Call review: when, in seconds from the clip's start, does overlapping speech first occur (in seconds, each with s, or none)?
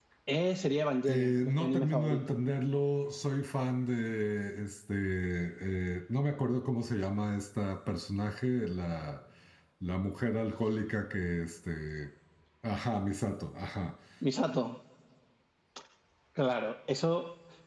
1.1 s